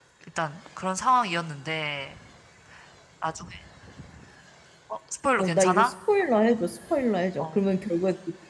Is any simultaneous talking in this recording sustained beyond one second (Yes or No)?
No